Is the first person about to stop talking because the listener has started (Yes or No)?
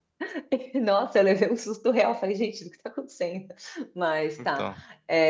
No